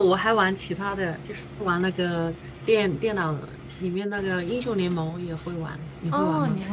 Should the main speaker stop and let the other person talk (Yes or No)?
Yes